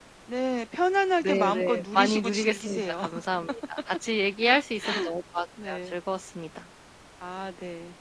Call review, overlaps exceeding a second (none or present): present